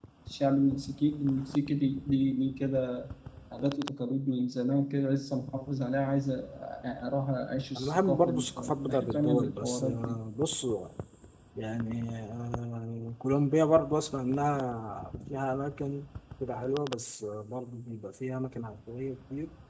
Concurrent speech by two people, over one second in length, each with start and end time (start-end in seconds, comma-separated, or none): 7.8-10.2